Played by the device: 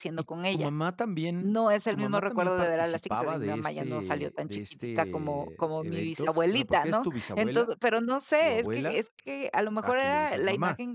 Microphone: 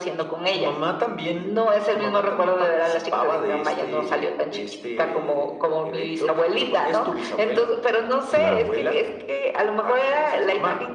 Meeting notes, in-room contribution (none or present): present